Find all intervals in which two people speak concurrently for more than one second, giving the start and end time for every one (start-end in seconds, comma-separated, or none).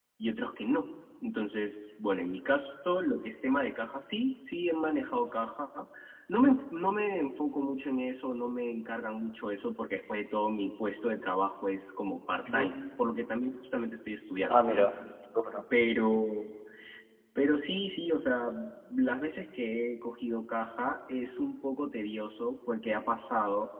none